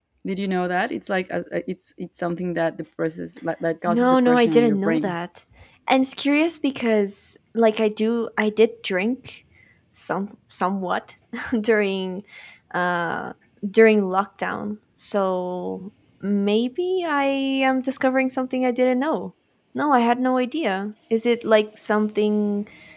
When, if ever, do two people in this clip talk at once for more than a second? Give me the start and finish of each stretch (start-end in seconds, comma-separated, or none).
3.9-5.1